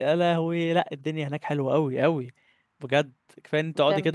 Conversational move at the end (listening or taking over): listening